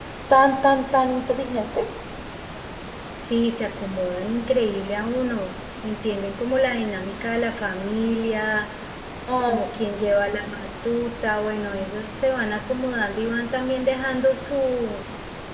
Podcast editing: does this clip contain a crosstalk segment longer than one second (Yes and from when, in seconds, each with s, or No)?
No